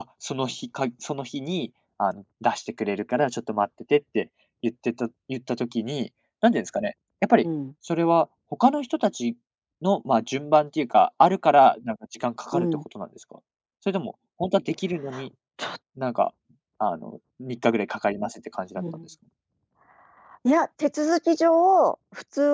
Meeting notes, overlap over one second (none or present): none